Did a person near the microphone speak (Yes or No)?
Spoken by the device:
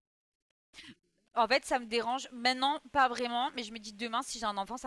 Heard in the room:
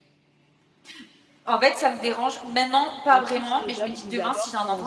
Yes